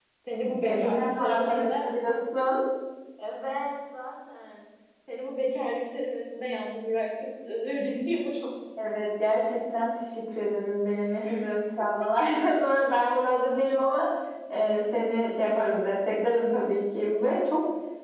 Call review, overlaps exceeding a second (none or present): present